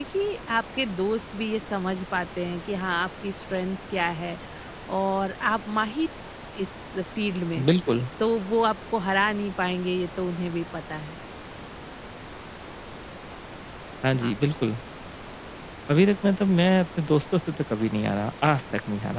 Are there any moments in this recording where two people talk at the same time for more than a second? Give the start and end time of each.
none

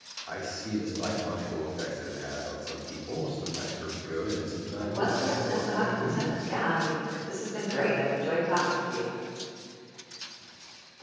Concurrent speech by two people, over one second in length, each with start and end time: 4.7-6.3

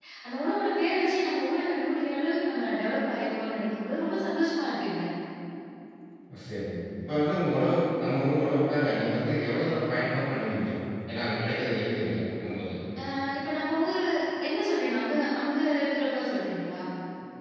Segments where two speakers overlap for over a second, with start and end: none

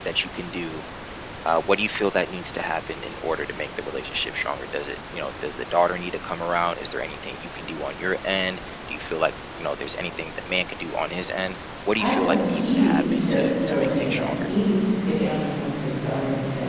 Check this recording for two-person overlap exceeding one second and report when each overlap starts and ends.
12.0-14.3

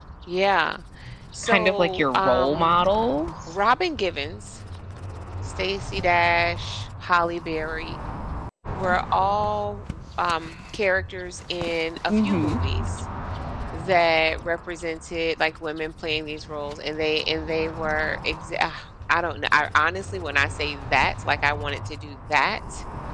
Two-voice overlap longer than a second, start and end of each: 1.4-2.7

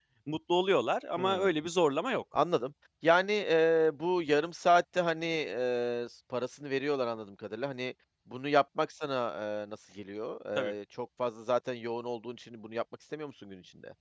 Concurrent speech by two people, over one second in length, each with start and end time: none

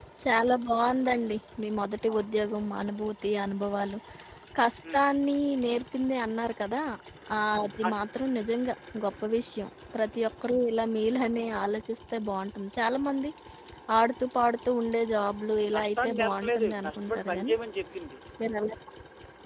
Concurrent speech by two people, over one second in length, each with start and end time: 15.7-17.6

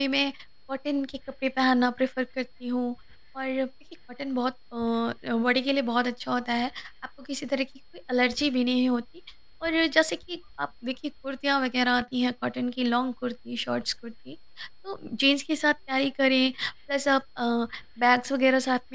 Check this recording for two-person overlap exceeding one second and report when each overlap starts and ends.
none

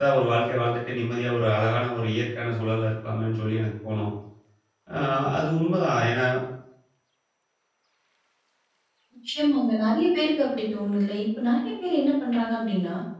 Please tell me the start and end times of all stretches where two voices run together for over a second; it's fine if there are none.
none

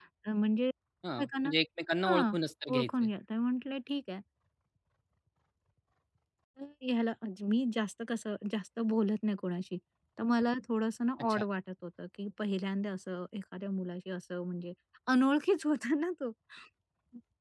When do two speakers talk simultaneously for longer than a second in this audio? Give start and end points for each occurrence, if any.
none

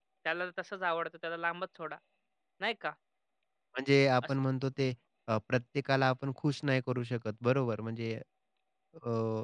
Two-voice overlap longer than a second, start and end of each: none

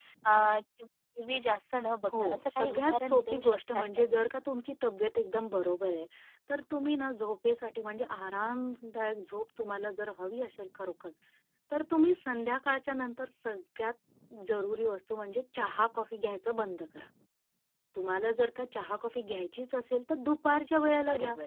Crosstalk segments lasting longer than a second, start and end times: 2.1-4.4

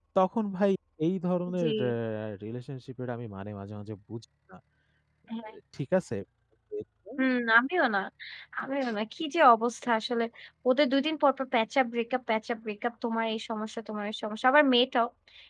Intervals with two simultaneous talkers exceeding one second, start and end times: none

